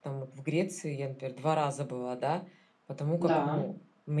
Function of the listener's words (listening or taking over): listening